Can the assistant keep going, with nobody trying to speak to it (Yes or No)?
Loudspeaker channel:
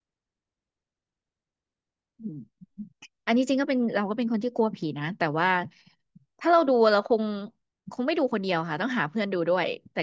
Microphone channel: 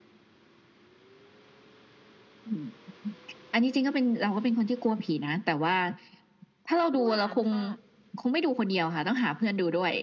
No